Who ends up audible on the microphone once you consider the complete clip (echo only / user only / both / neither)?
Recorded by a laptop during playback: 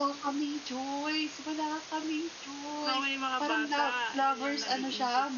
both